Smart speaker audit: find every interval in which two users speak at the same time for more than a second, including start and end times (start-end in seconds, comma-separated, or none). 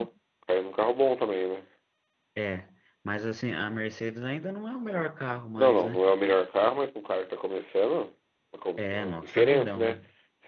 8.8-10.0